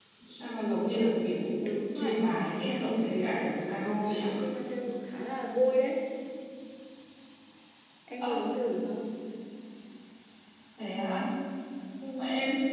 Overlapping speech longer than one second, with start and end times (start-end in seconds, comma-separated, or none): 1.9-3.6